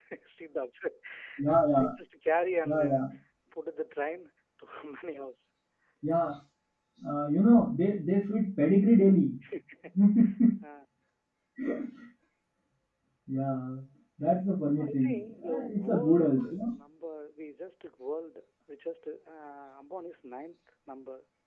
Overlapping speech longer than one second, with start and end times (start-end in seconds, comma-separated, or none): 14.8-16.7